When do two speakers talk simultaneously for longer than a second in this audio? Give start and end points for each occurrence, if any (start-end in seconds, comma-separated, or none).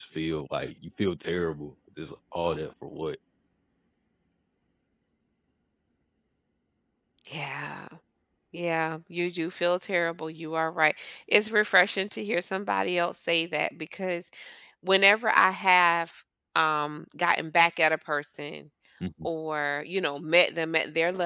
none